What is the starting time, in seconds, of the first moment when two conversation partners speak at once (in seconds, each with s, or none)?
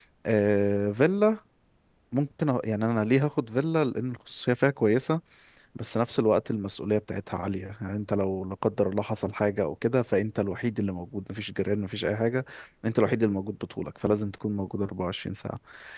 none